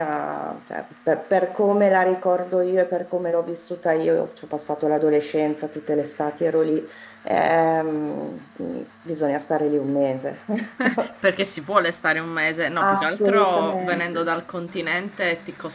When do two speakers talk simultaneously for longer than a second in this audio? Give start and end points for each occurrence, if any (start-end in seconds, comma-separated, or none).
12.9-14.3